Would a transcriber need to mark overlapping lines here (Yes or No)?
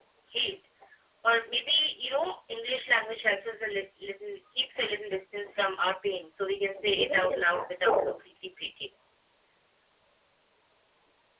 Yes